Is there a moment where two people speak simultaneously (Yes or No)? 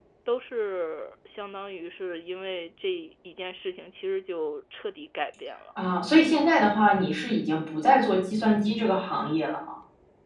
No